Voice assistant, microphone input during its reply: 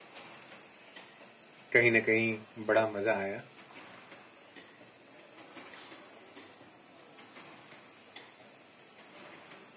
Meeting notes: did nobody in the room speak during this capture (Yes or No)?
No